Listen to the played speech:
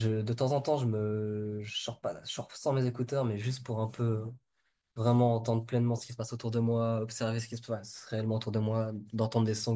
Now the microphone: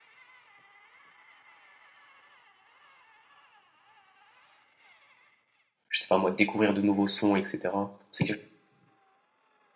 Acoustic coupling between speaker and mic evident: No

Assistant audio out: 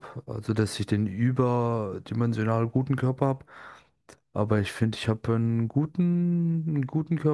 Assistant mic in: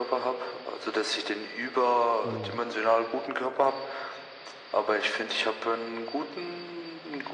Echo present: Yes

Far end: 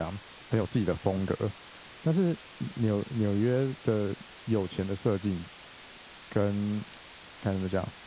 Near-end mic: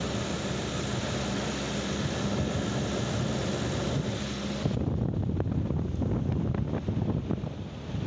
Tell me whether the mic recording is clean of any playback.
Yes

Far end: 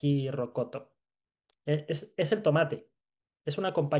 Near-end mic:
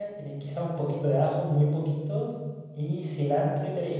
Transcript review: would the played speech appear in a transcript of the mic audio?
No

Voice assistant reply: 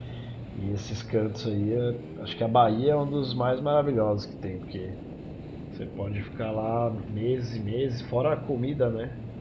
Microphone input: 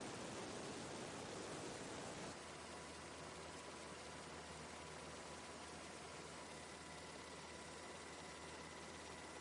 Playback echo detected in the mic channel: No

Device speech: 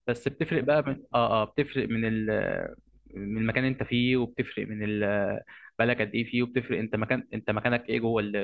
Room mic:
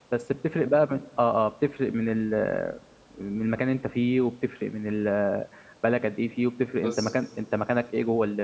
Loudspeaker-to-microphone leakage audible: Yes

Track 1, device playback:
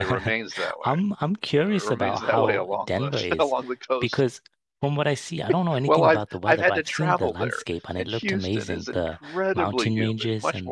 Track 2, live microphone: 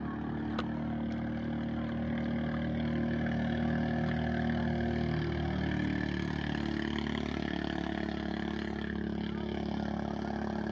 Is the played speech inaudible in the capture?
Yes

